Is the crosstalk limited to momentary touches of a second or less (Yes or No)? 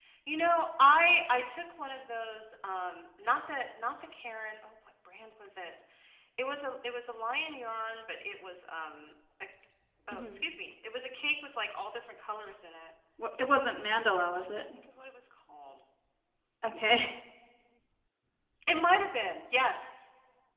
Yes